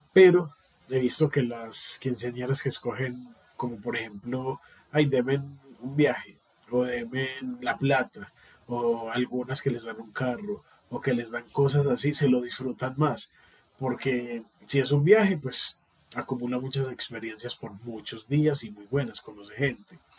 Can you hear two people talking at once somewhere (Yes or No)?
No